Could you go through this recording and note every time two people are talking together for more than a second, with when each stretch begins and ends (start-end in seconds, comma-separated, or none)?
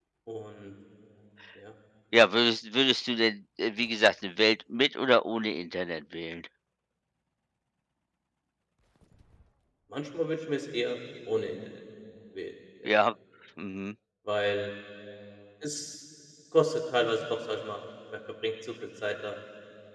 none